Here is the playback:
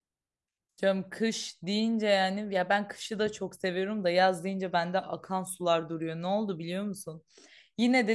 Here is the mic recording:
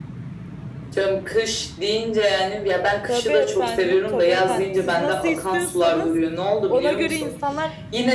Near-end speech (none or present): present